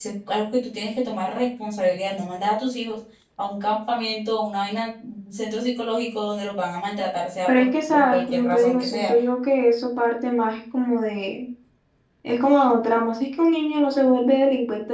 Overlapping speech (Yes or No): Yes